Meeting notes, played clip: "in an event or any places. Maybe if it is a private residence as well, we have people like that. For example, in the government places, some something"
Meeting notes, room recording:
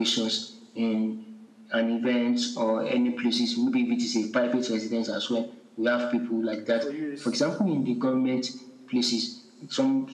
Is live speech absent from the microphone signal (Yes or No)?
No